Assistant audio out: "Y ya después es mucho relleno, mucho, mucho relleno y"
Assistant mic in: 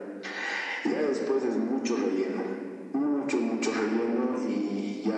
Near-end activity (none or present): none